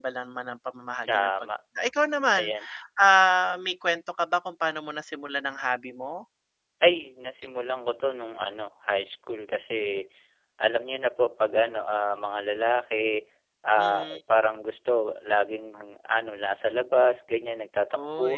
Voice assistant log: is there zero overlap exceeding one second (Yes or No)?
Yes